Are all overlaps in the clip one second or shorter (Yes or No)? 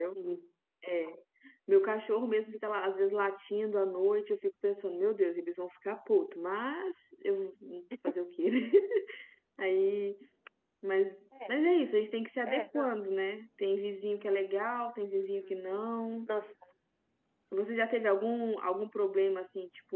Yes